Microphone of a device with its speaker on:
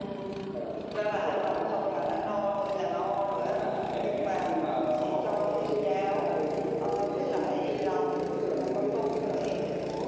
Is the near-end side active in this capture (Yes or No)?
No